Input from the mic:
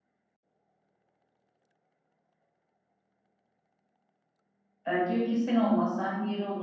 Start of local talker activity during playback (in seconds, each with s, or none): 4.9 s